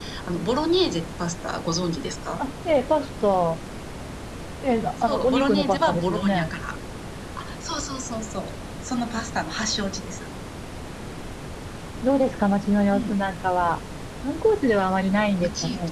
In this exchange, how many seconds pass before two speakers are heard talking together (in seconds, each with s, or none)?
5.0 s